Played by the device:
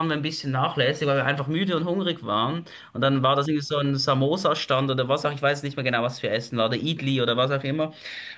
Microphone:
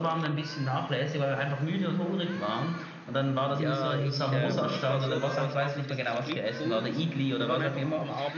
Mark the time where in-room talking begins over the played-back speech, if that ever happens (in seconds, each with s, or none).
3.5 s